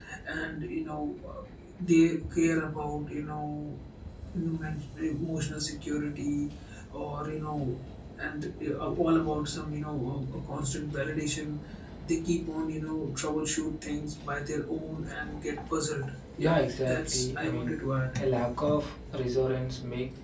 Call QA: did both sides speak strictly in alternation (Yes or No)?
No